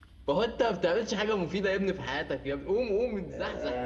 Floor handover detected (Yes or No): No